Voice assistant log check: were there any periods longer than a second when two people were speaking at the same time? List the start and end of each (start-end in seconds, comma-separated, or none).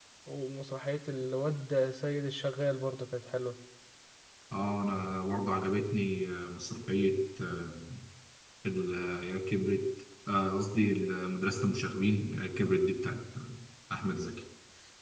none